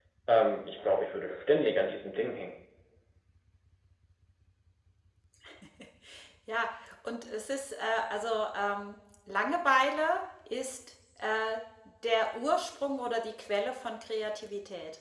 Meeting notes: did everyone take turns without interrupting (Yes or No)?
Yes